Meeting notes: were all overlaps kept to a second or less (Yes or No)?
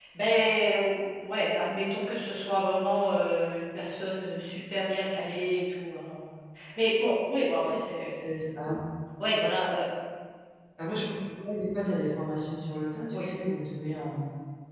Yes